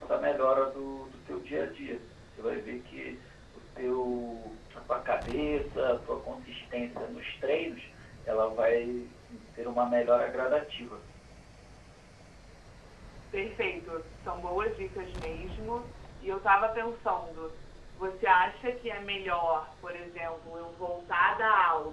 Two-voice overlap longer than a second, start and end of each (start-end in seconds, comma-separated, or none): none